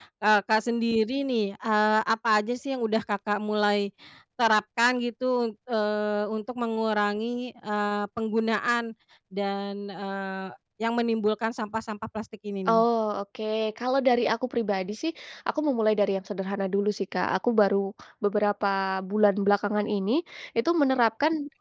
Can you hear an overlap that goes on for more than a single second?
No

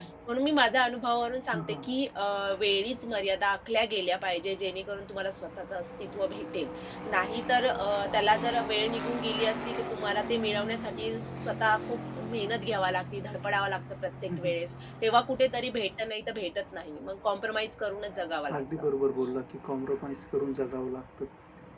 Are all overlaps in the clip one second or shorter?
Yes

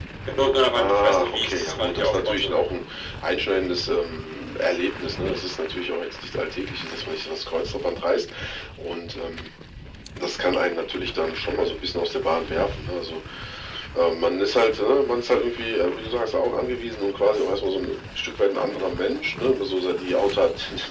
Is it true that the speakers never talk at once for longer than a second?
No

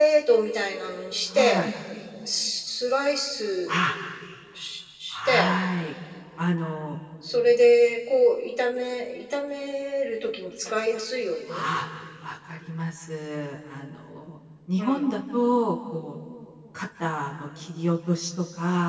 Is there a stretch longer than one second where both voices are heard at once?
No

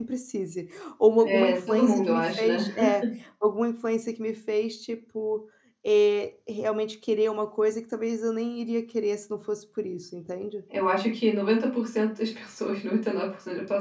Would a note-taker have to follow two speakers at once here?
Yes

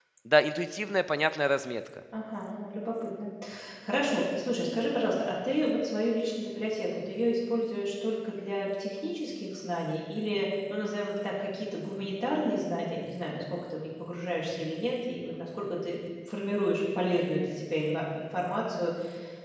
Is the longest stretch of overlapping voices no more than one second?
Yes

